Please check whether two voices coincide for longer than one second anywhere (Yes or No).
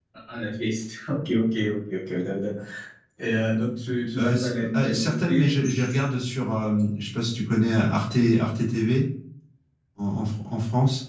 Yes